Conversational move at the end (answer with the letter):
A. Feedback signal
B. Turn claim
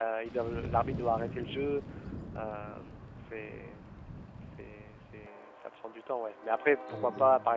A